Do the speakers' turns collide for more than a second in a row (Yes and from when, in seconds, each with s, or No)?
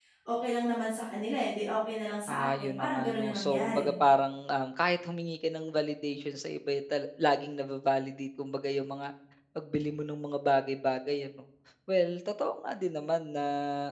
Yes, from 2.3 s